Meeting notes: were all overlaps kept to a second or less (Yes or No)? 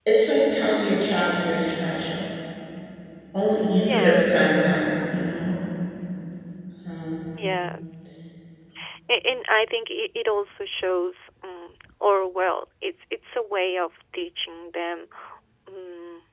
Yes